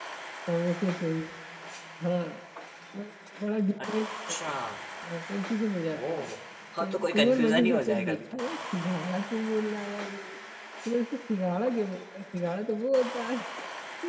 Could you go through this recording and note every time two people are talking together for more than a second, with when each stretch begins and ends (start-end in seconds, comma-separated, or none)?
6.8-8.2